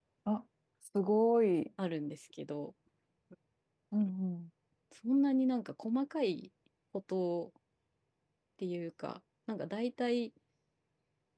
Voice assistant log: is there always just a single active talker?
Yes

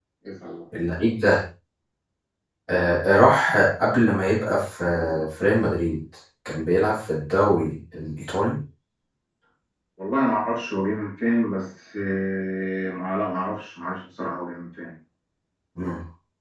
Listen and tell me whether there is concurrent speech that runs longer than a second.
No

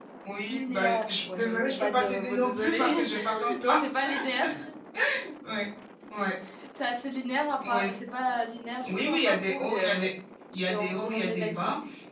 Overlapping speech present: Yes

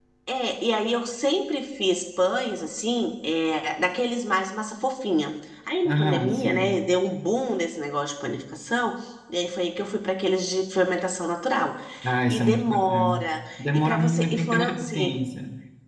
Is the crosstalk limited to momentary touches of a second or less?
No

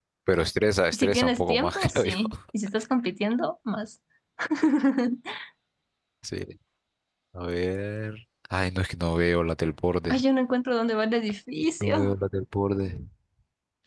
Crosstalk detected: Yes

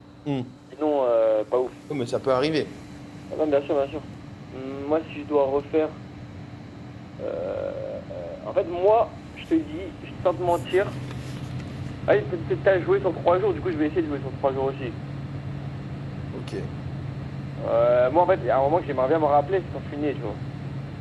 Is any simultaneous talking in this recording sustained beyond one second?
No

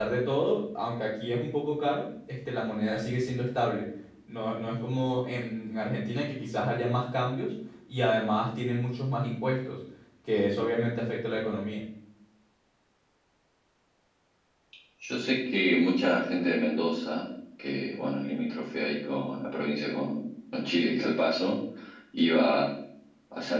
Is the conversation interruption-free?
Yes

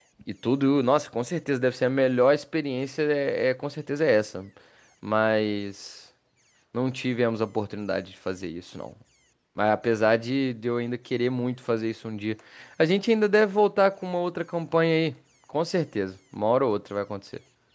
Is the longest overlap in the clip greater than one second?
No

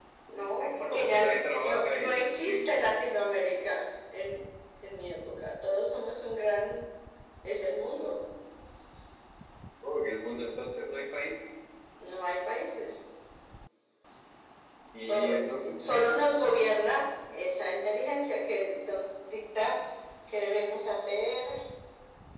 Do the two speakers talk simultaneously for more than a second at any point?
Yes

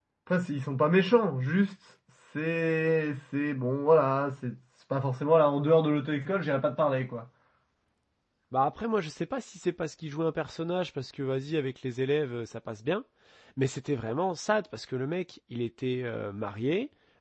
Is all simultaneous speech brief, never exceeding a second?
Yes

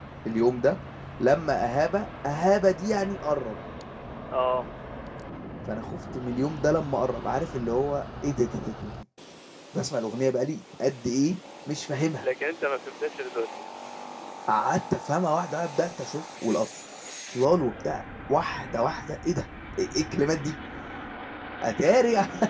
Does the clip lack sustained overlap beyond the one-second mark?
Yes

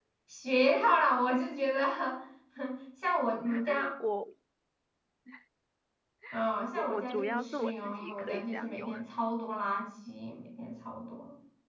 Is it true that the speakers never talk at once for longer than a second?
No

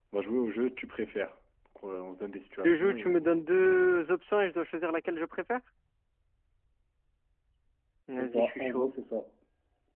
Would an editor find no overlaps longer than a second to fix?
No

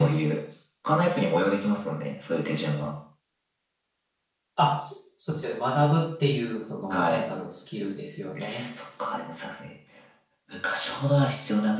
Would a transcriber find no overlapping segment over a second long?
Yes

